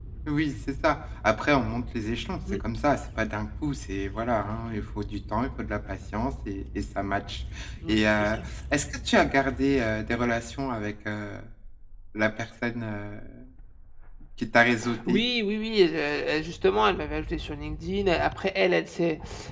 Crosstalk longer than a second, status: none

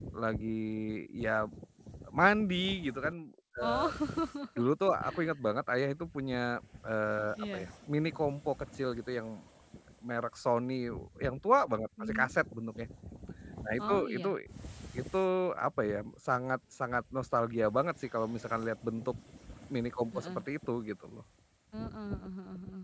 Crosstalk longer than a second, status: none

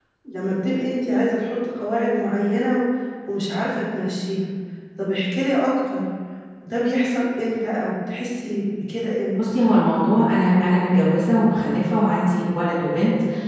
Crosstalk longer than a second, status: none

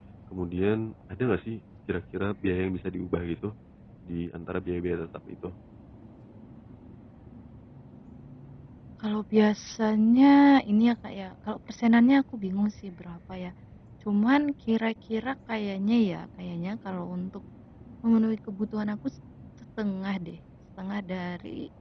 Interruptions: none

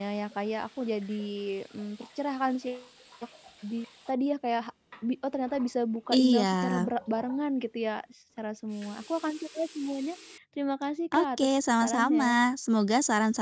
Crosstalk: present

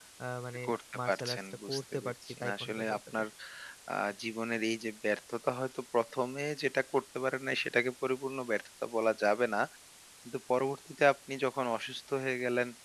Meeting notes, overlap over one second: present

